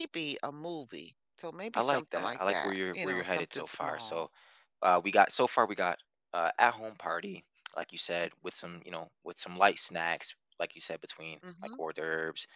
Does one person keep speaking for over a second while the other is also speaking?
Yes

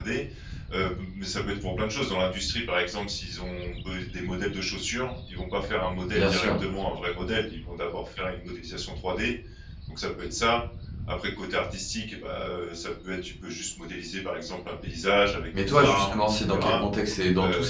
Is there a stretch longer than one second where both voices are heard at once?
Yes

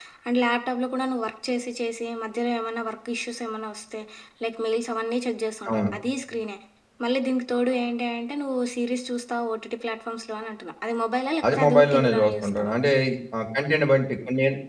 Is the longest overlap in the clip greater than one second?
Yes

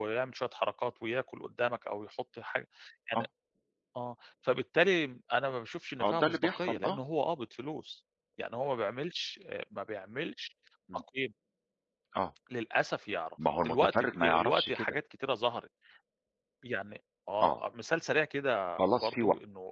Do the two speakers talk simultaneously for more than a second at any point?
Yes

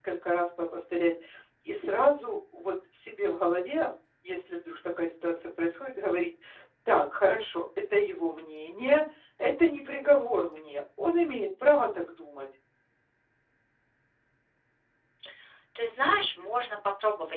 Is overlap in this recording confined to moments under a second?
Yes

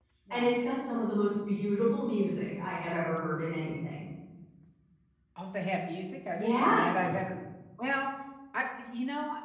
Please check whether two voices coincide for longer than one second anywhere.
No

